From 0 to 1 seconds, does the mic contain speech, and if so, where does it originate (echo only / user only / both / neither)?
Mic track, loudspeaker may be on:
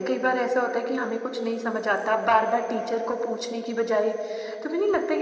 echo only